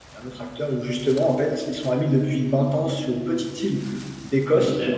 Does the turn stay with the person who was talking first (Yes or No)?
Yes